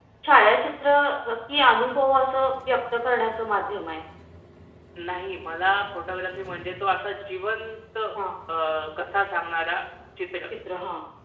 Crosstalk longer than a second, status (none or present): none